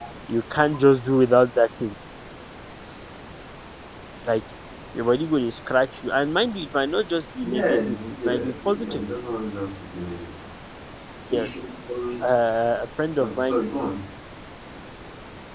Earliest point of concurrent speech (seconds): 7.4 s

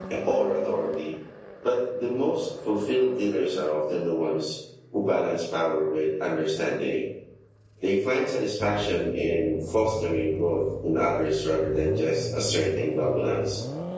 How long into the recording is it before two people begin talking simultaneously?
none

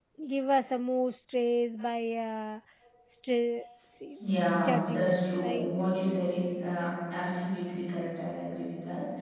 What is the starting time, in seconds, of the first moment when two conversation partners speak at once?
4.2 s

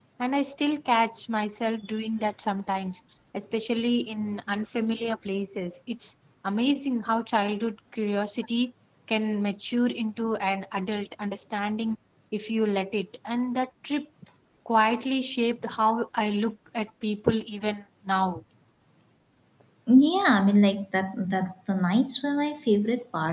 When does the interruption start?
none

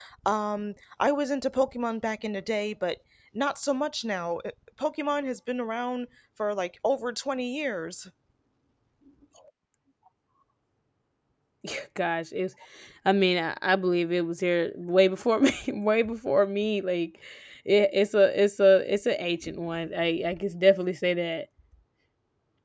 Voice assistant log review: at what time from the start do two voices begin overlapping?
none

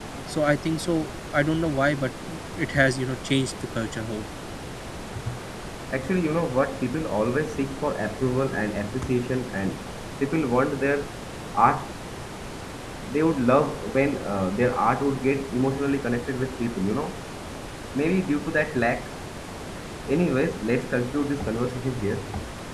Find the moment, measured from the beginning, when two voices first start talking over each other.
none

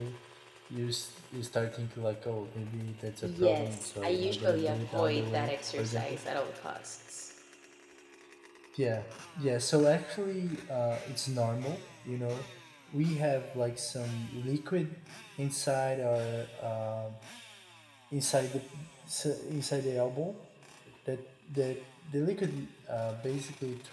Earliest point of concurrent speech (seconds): 3.2 s

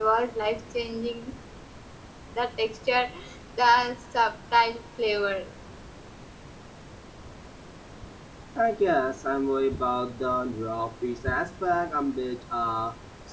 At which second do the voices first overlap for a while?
none

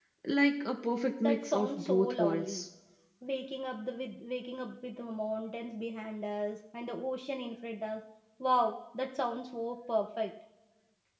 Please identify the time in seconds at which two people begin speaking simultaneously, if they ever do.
1.2 s

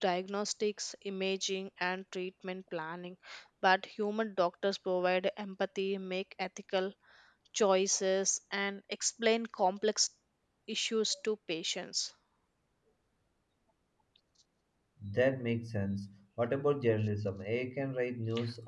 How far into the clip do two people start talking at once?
none

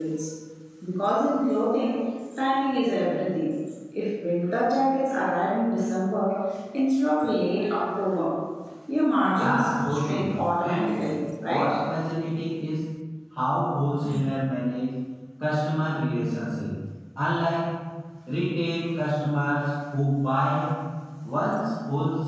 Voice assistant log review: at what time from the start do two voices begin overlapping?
9.3 s

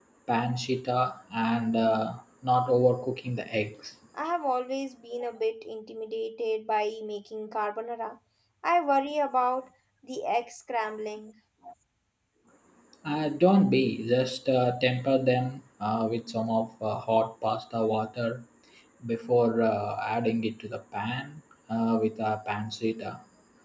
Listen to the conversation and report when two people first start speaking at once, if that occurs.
none

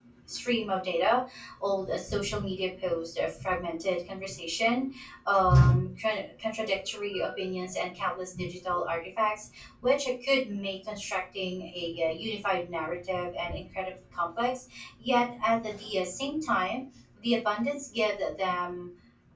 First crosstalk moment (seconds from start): none

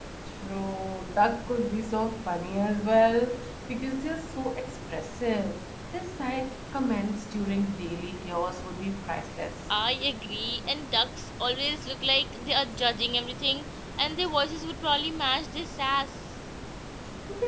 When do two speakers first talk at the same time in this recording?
none

